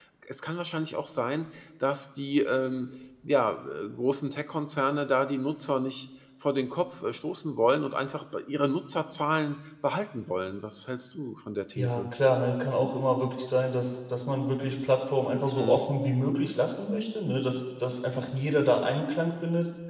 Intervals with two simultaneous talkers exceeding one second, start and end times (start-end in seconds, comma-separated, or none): none